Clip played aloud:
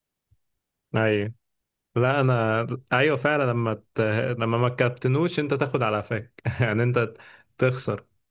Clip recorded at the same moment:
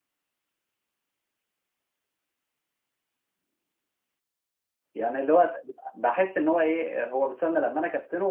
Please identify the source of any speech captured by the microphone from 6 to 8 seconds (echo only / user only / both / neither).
user only